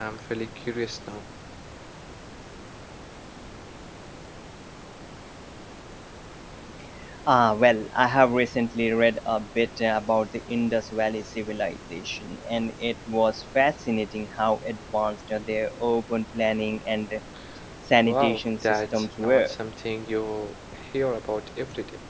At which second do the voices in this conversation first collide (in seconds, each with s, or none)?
18.0 s